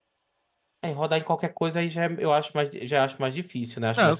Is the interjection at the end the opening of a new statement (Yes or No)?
Yes